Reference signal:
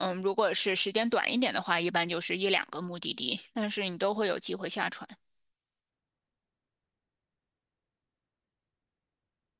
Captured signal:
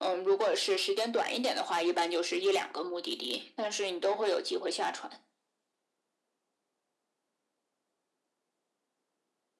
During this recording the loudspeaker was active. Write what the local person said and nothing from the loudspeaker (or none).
none